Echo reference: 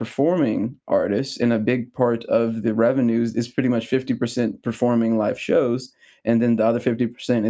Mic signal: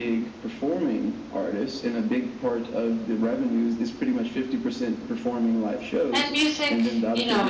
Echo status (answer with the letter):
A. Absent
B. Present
B